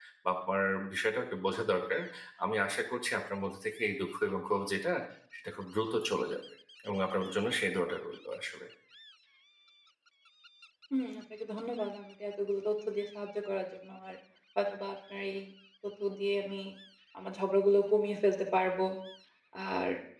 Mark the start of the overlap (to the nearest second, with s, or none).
none